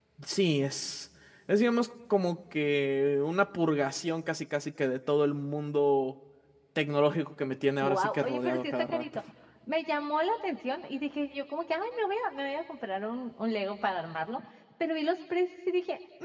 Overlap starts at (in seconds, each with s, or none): 7.8 s